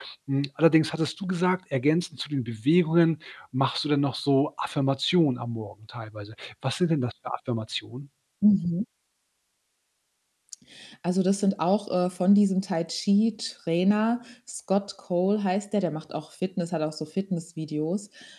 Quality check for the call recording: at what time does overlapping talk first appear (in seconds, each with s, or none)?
none